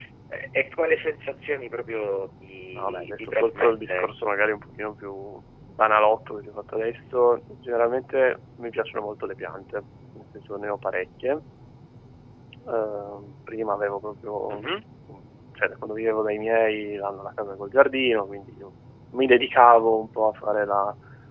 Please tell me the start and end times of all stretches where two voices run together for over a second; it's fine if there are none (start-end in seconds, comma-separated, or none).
2.8-4.1